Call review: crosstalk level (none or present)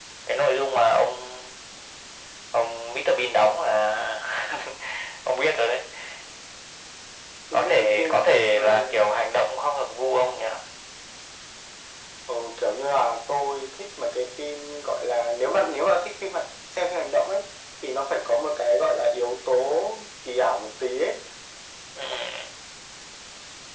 present